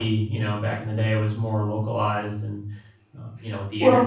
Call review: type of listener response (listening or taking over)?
listening